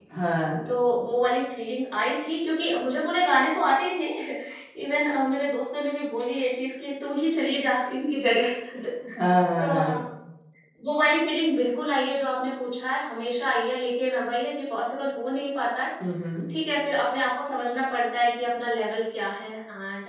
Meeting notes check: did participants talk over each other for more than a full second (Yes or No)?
No